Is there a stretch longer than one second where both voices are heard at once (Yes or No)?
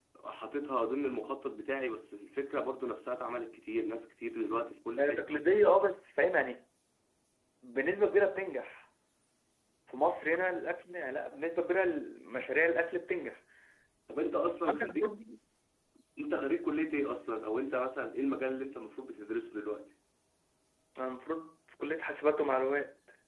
No